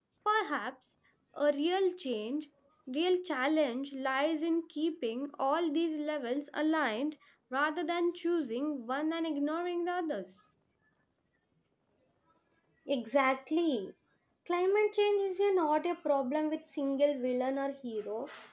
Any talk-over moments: No

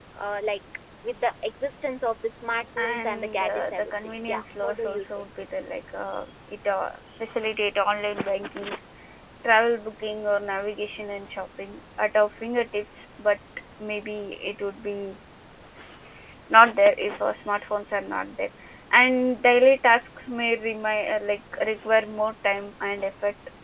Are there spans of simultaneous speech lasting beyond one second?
Yes, from 2.6 s

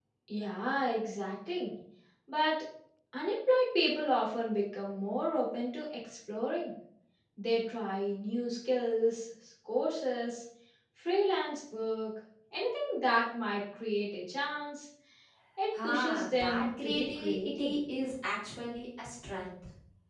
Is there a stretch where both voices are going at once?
Yes, from 15.8 s

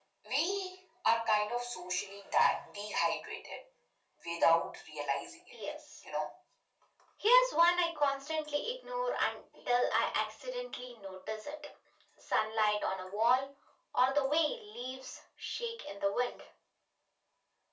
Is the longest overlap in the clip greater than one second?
No

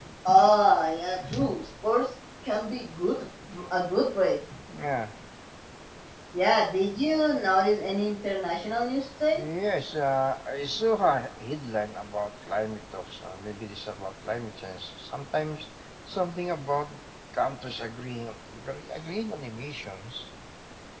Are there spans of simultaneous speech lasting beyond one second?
No

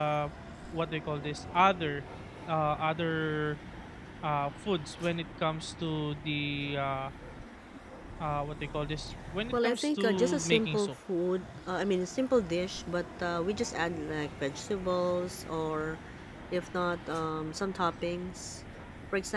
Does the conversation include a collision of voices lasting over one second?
Yes, from 9.2 s

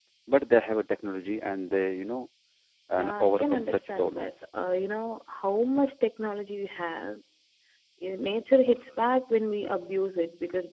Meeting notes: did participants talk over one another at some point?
Yes, from 3.0 s

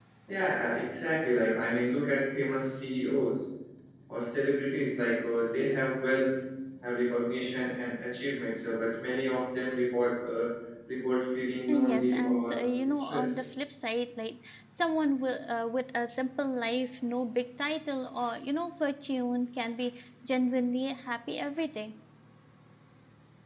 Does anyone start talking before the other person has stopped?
Yes, from 11.7 s

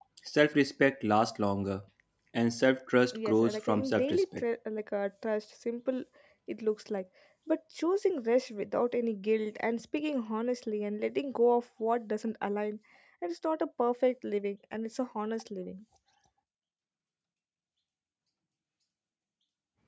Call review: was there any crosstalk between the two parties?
Yes, from 3.1 s

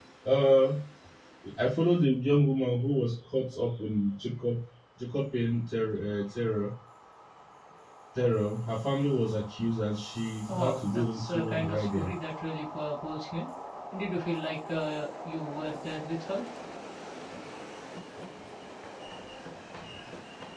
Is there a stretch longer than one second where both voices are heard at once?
Yes, from 10.5 s

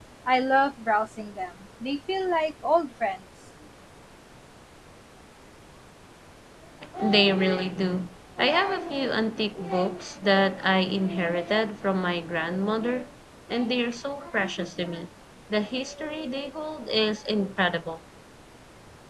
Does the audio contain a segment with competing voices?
No

